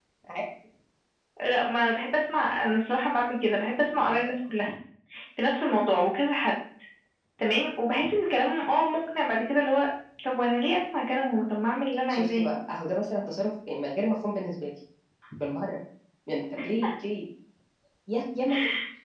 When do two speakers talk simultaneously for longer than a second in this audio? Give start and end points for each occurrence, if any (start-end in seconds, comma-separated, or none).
none